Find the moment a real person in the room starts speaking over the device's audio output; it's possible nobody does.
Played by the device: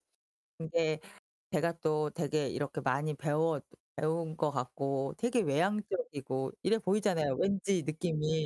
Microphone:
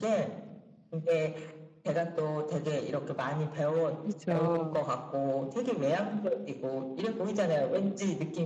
4.0 s

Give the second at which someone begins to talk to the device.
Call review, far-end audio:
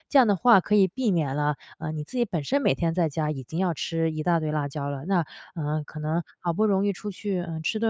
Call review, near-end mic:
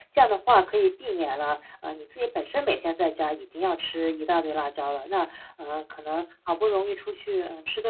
none

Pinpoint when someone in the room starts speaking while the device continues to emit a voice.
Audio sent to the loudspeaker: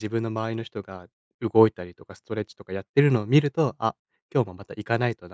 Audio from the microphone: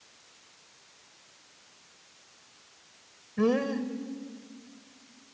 3.4 s

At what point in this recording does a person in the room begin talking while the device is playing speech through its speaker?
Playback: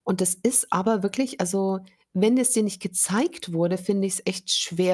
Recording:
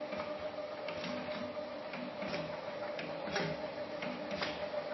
none

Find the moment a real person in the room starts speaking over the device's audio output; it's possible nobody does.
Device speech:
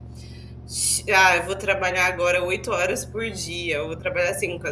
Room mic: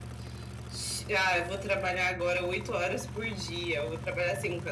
none

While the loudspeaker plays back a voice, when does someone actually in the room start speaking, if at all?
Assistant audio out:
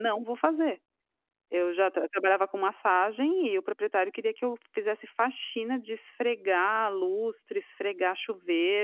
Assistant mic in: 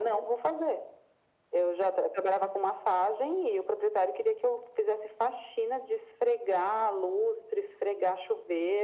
none

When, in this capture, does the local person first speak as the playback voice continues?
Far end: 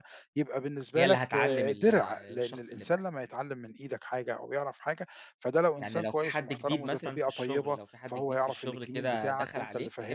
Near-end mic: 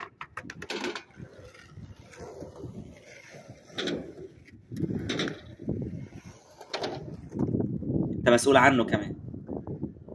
8.1 s

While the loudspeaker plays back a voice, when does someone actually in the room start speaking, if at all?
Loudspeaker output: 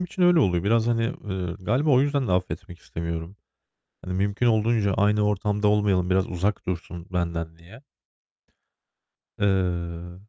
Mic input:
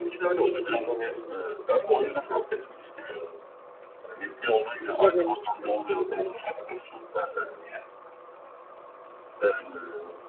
5.0 s

